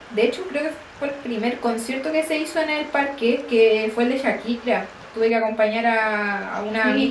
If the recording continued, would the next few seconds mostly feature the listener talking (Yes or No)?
Yes